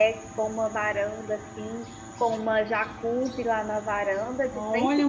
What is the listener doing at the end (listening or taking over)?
taking over